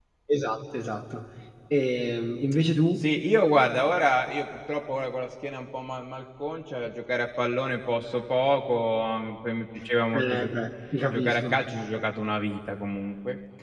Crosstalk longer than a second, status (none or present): none